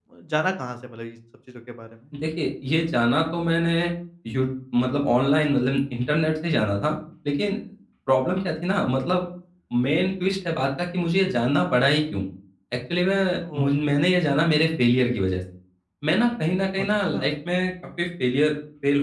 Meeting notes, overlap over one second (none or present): none